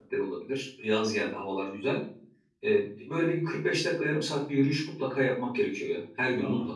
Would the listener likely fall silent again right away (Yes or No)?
No